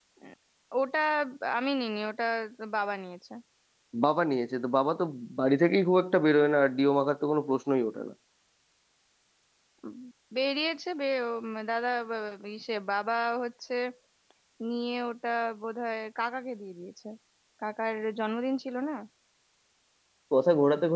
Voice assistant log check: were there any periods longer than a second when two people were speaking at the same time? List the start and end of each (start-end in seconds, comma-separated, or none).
none